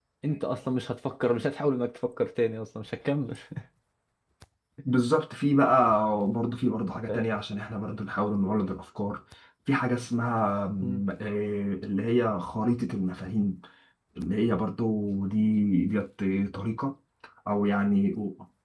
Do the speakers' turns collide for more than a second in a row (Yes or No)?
No